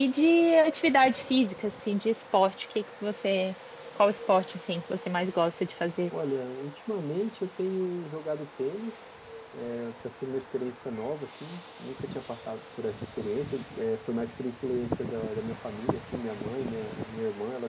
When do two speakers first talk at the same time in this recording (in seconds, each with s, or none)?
none